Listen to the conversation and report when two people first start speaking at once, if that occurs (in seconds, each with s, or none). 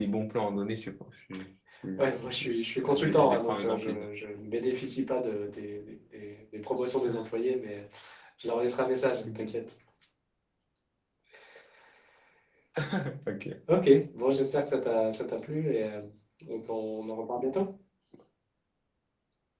2.2 s